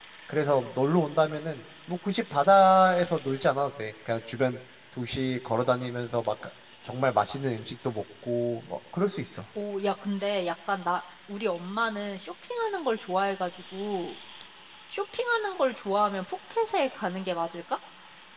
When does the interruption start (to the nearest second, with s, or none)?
none